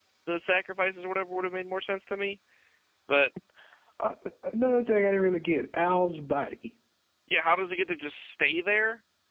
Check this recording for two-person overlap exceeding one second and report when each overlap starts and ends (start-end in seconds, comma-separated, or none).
none